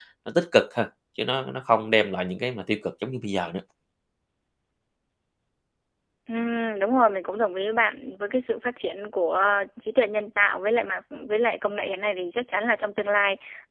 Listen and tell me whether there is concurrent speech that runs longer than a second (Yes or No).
No